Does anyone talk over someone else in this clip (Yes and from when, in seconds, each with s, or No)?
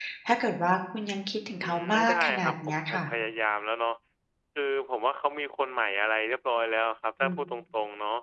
Yes, from 1.6 s